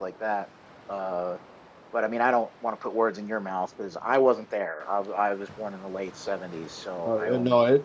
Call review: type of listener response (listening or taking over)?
taking over